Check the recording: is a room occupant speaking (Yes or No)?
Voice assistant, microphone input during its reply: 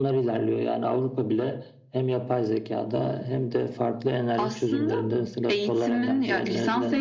No